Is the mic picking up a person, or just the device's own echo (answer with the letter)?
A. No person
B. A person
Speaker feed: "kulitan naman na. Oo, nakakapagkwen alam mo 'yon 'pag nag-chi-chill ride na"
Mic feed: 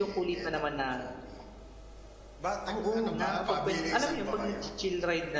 B